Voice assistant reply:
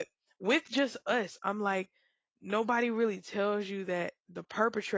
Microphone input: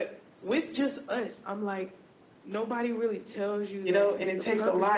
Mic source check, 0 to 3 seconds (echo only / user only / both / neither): echo only